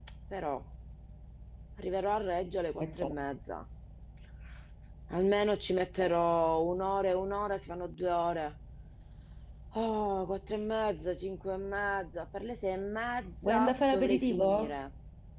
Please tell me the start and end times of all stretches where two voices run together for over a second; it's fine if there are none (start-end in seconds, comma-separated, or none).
13.4-14.8